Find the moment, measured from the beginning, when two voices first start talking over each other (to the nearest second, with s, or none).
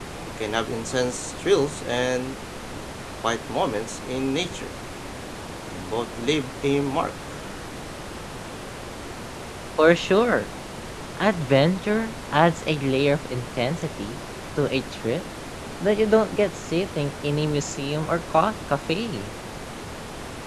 none